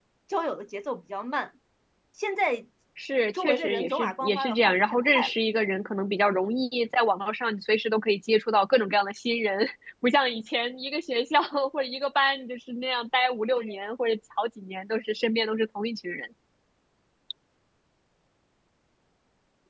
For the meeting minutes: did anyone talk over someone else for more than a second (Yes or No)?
Yes